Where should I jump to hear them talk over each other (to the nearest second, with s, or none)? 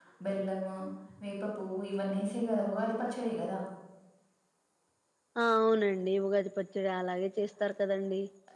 none